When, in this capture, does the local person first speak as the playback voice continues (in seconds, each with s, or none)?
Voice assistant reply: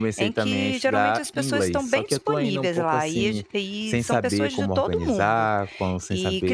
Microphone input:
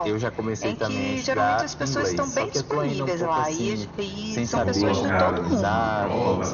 4.5 s